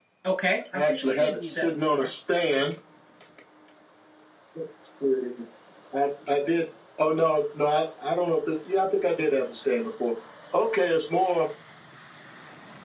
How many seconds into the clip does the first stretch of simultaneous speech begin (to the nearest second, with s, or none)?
1 s